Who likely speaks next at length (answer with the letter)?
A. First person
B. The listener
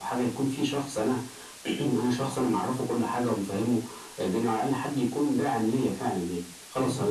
B